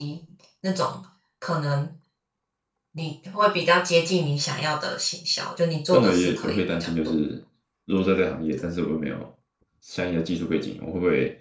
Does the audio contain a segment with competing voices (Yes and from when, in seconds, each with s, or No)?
Yes, from 5.9 s